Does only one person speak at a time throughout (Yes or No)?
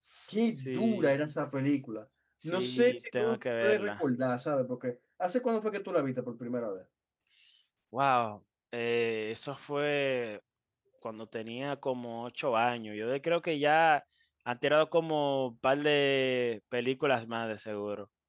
No